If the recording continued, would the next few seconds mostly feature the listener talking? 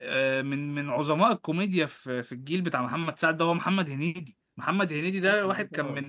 No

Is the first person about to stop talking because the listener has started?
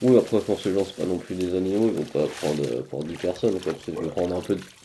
No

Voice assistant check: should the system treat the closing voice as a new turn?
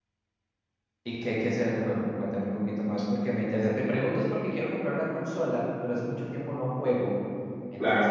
No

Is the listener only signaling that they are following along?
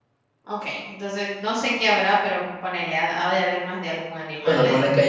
No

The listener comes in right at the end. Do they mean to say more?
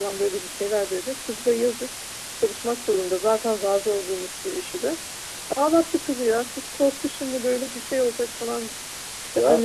No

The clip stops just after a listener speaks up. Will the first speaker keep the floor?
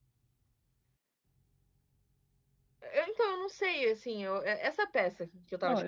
No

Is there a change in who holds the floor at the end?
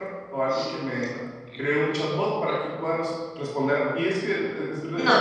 Yes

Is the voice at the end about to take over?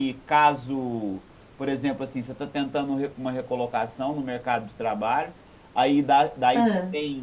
No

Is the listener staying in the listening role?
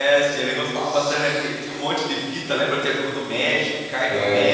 No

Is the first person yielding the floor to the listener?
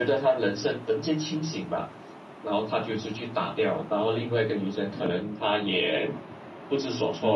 No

